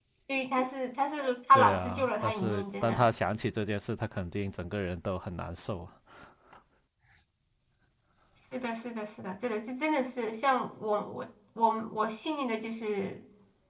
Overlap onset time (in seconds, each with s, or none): 1.5 s